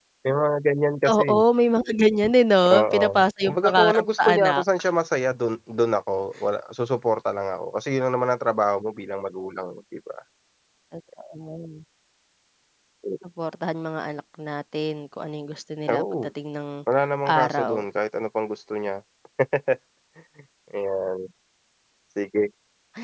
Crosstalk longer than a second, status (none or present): present